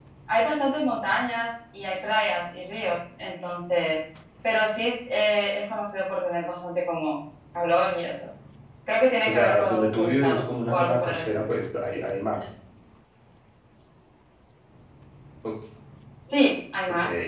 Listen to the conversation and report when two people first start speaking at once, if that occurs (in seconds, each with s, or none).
9.3 s